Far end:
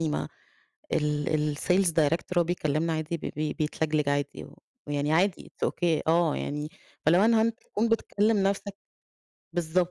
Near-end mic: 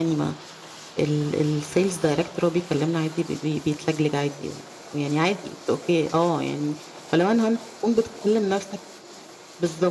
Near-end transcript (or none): none